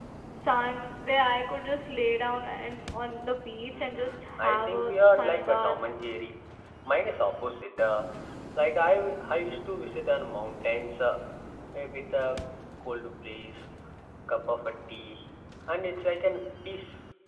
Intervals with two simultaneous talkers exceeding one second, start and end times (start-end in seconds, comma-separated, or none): 3.7-5.8